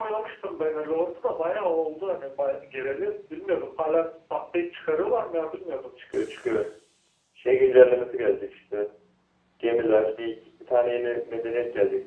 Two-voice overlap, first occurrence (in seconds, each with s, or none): none